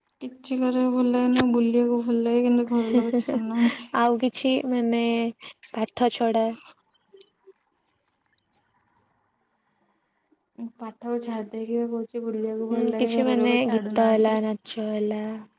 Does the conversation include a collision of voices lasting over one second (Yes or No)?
Yes